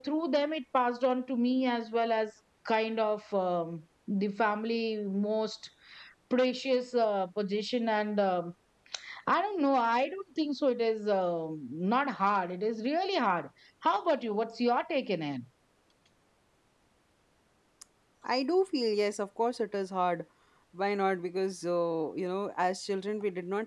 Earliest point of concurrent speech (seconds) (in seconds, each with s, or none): none